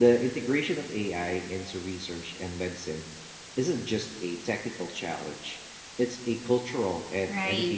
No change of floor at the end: No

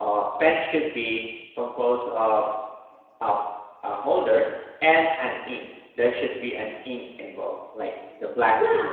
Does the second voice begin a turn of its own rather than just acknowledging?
Yes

